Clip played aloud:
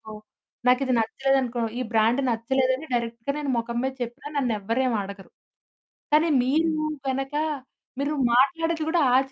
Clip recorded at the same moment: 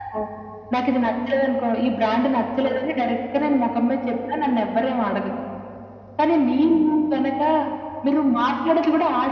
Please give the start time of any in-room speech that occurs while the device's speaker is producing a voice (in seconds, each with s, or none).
none